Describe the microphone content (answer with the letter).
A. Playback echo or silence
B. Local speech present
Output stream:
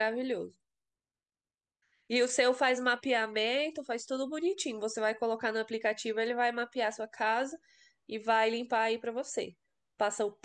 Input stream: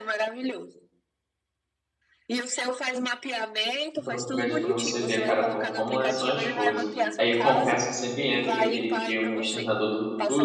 B